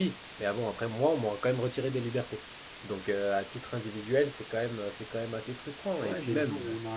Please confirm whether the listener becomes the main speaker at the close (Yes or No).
Yes